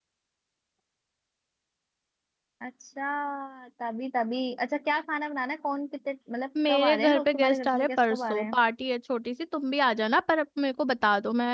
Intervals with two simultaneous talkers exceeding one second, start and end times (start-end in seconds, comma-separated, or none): 6.7-8.6